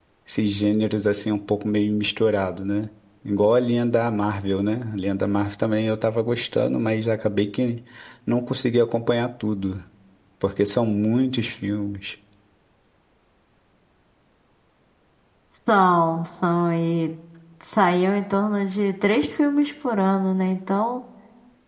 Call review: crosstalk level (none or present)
none